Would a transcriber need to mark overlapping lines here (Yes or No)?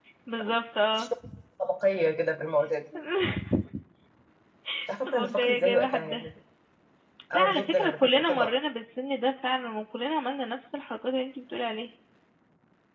Yes